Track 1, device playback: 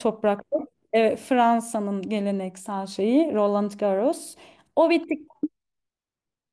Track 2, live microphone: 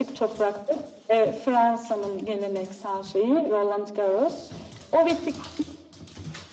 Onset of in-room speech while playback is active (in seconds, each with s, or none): none